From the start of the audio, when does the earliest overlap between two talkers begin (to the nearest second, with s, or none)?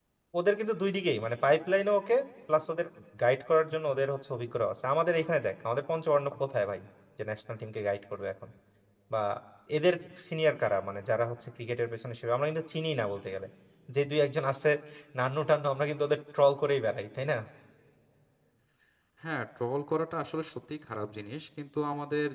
none